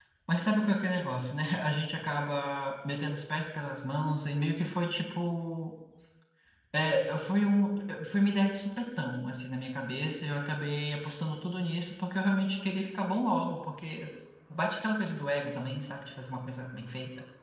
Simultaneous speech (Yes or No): No